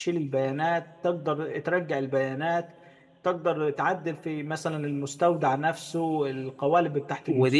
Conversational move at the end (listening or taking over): taking over